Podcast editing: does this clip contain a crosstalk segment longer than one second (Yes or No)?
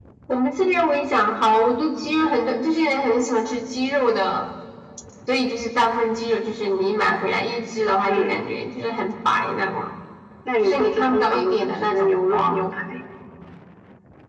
Yes